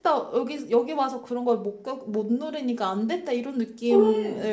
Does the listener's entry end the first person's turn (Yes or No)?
No